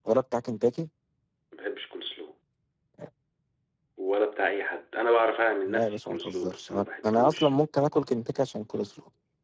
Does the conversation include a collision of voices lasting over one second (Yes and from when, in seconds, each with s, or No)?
Yes, from 5.7 s